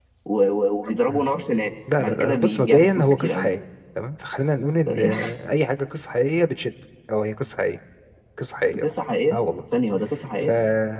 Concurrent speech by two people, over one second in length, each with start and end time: 1.9-3.5

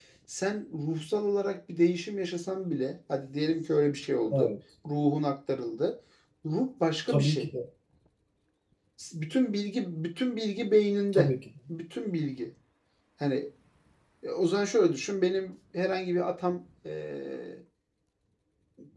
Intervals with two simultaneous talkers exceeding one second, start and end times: none

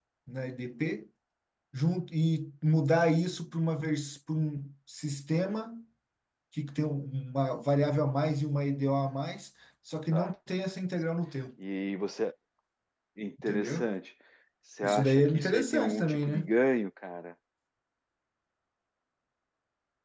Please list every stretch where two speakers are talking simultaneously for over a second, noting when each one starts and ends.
14.8-16.5

